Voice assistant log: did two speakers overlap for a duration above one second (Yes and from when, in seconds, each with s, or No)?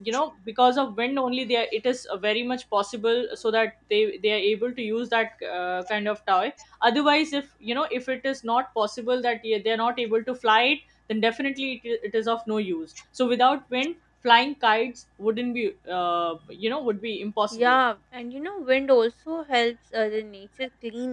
No